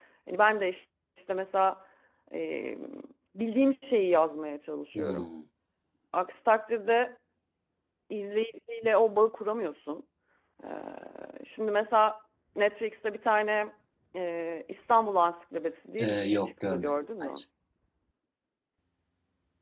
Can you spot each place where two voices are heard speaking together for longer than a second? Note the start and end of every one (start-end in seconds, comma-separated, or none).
16.0-17.3